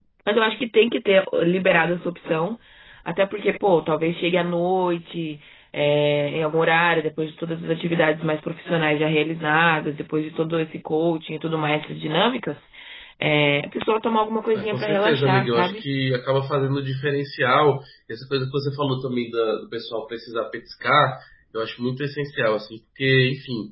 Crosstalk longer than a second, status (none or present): present